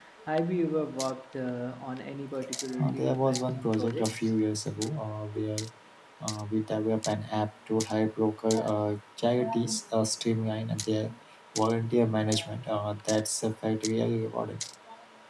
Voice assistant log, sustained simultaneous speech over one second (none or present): present